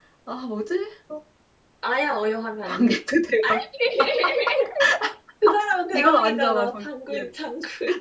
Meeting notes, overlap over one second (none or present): present